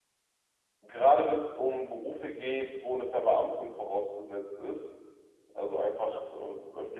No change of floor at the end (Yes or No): Yes